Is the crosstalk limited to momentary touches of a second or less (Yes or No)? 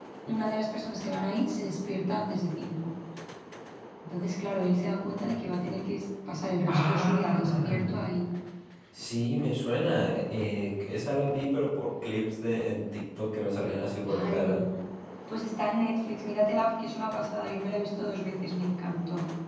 No